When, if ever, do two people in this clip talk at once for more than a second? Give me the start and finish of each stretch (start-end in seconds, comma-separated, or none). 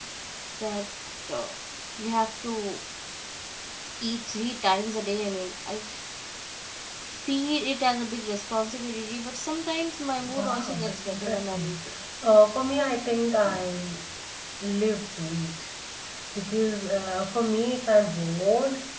10.3-11.8